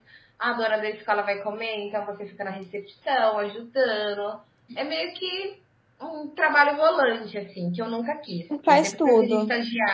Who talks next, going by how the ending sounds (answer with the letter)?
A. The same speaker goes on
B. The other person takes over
A